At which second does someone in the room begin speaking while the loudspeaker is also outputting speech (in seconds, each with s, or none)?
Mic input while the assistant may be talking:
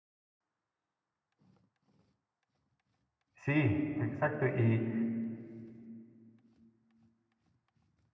3.5 s